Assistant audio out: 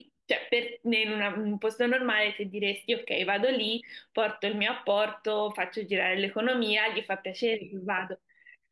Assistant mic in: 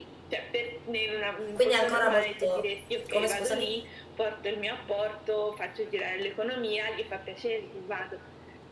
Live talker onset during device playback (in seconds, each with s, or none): 1.5 s